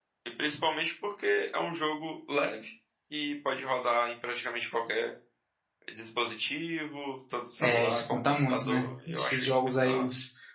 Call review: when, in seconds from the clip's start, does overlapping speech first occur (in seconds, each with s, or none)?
7.6 s